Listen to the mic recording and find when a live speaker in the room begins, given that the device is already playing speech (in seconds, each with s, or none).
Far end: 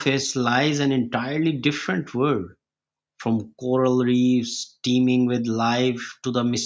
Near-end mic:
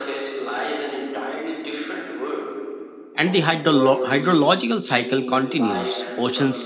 3.1 s